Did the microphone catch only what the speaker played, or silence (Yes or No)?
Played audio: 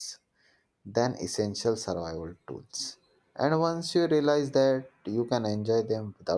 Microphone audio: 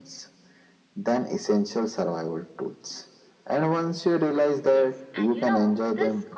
No